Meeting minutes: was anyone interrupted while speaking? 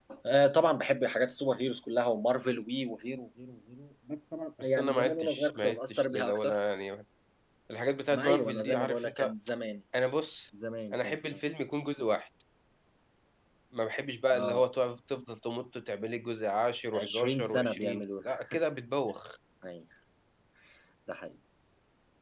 Yes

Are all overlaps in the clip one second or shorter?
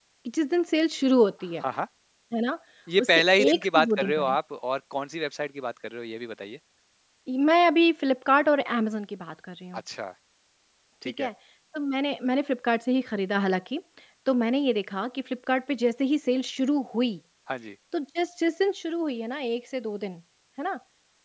No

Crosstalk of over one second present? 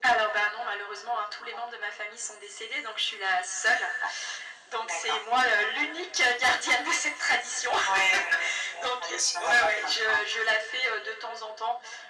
Yes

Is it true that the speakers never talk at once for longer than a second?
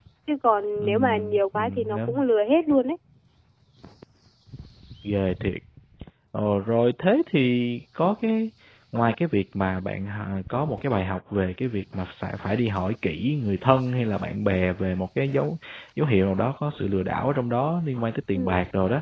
No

